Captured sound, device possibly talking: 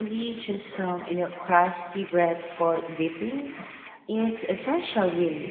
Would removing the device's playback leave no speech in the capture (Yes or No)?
No